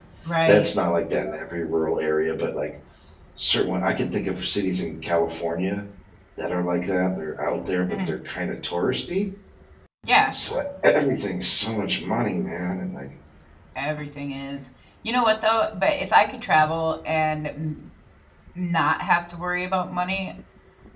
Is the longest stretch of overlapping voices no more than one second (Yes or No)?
Yes